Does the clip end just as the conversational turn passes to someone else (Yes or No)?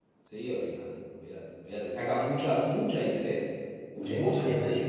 Yes